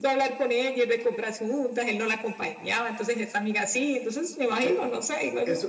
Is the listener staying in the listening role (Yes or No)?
No